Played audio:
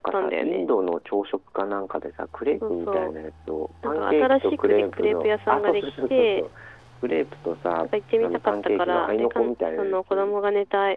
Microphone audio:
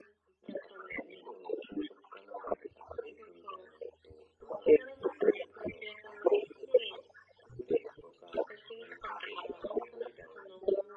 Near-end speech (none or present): none